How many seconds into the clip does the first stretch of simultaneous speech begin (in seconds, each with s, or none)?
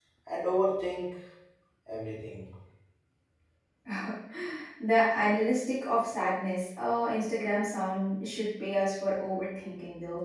none